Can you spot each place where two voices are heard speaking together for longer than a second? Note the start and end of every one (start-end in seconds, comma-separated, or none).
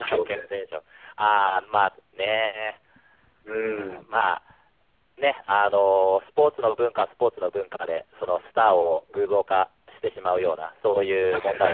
none